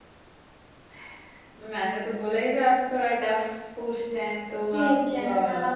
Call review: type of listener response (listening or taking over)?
taking over